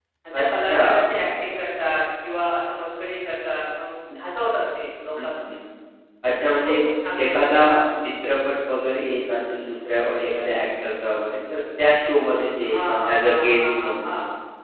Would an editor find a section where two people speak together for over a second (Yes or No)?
Yes